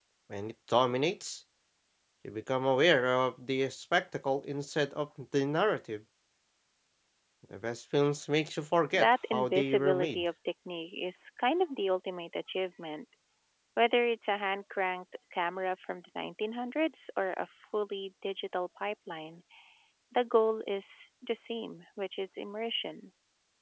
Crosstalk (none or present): present